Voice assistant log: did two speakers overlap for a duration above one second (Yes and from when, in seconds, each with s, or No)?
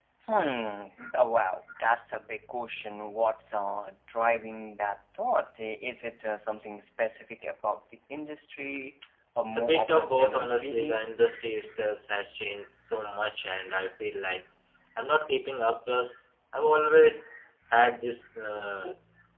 Yes, from 9.5 s